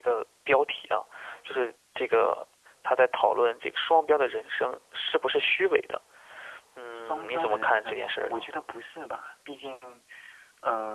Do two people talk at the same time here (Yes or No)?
Yes